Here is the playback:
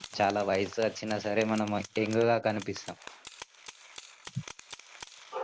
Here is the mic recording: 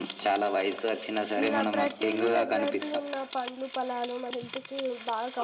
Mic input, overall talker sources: both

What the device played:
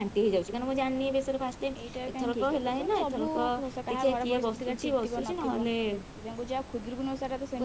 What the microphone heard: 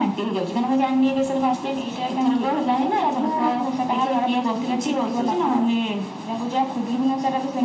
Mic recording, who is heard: echo only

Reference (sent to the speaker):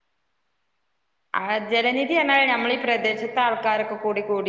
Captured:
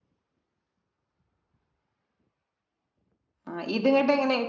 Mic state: user only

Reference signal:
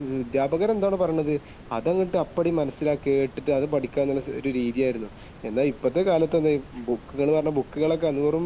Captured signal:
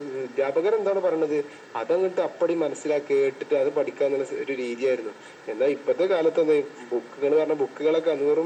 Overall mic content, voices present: echo only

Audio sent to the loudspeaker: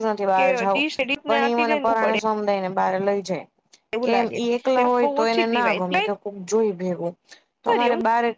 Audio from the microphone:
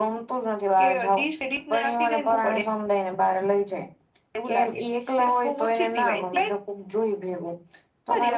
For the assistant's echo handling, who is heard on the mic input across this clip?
echo only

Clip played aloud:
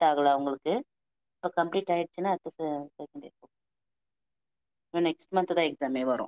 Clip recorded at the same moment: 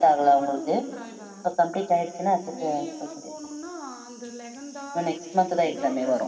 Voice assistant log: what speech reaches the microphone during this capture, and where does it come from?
both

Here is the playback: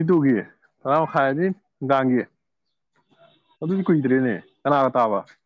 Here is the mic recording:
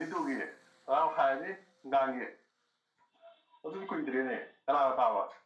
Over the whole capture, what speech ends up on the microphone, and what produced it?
echo only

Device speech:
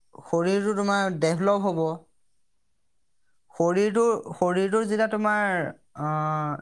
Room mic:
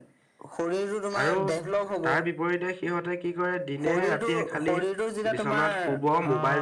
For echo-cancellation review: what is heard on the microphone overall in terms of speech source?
both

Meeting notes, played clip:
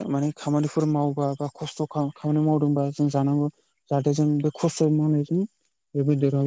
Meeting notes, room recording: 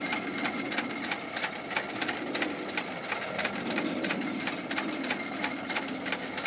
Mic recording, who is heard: neither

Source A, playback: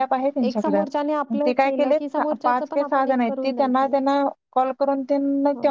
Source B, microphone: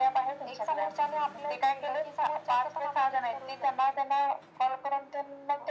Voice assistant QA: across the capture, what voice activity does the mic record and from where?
echo only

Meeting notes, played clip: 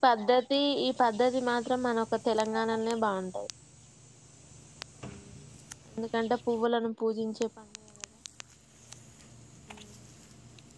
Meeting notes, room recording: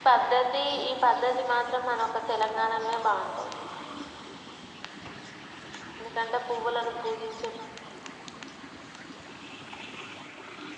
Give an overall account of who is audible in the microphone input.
echo only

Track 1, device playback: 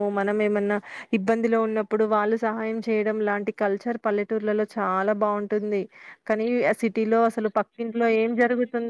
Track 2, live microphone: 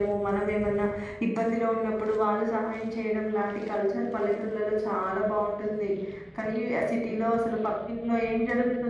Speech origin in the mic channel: echo only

